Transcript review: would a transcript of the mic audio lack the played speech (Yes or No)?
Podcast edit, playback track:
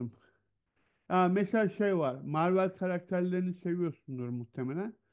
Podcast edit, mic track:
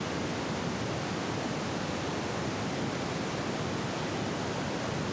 Yes